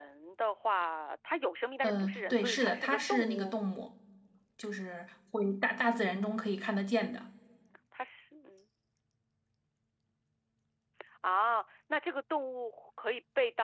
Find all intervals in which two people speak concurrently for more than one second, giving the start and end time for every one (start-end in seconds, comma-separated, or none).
1.8-3.6